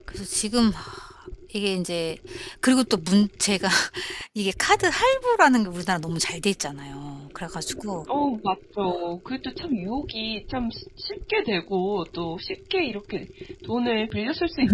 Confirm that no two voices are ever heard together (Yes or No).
Yes